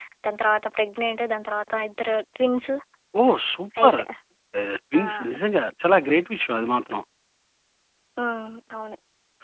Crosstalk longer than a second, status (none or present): none